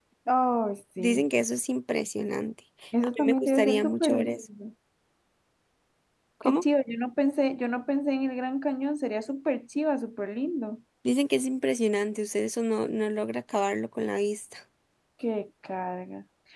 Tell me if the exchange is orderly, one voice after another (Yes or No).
No